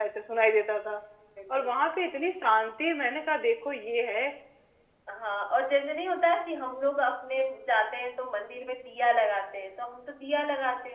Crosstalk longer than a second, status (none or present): none